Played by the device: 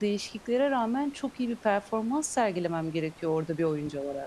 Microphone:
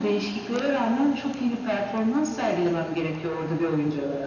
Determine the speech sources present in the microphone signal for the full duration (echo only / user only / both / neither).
echo only